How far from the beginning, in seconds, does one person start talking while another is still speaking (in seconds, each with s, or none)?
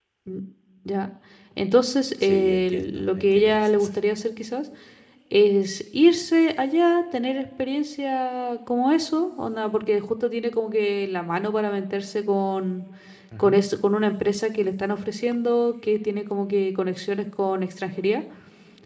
2.2 s